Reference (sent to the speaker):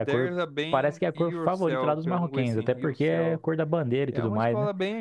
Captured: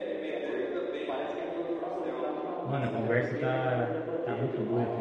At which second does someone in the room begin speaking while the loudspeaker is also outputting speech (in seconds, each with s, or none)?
2.6 s